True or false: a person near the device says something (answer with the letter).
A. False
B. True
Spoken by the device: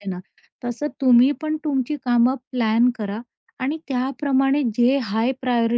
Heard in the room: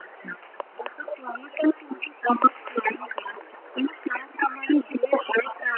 A